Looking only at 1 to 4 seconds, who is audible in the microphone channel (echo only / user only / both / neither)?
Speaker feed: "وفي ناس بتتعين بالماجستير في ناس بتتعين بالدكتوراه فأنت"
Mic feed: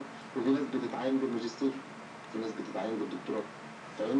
echo only